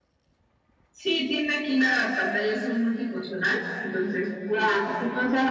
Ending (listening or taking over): taking over